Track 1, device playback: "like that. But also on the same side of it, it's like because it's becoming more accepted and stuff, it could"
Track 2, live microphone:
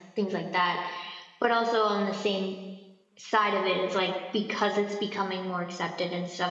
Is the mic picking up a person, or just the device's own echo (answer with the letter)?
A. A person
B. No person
B